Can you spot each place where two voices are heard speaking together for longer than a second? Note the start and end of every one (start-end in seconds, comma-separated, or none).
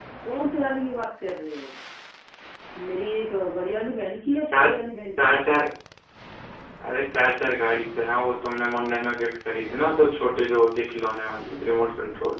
none